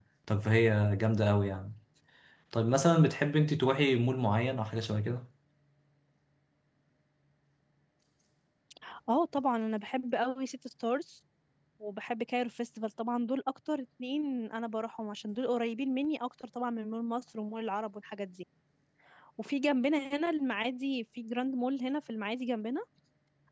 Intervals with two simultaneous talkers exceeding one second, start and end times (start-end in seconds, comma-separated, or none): none